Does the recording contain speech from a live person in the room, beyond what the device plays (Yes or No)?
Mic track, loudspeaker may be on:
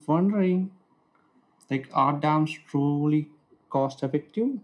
No